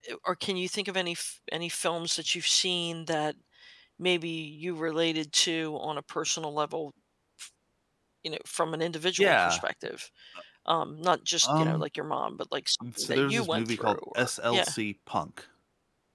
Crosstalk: present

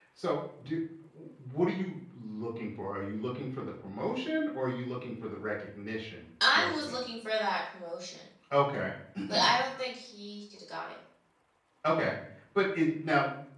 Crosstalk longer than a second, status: none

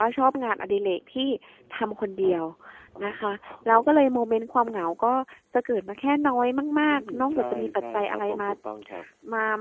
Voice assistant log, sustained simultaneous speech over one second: present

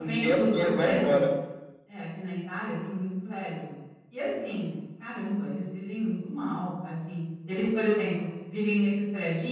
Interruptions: present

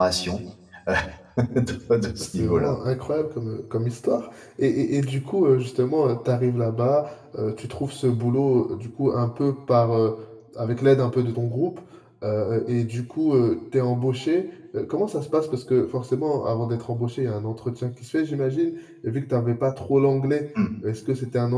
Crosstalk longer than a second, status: none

